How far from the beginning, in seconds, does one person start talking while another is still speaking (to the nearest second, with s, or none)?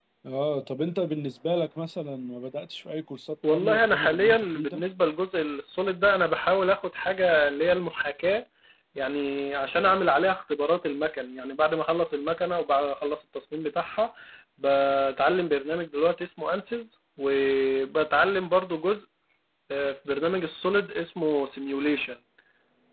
3 s